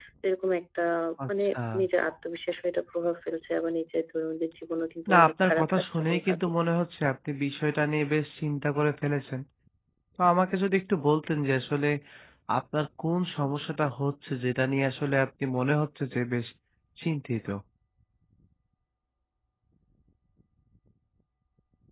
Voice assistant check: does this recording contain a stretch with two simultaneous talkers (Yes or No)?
Yes